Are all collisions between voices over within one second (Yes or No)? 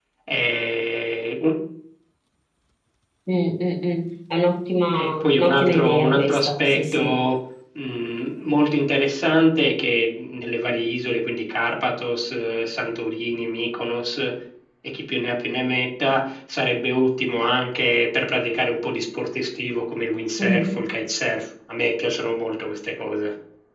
No